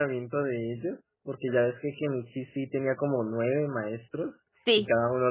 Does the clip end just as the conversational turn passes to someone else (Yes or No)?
No